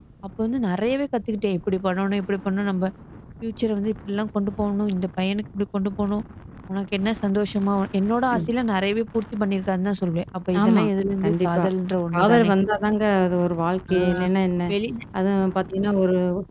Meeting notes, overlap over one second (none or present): none